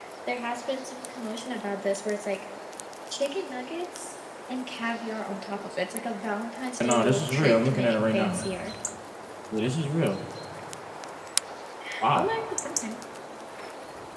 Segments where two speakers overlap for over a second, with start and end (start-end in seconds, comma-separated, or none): 6.8-8.4